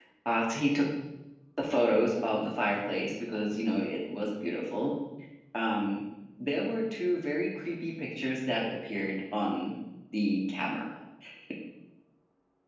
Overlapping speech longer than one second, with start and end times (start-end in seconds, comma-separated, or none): none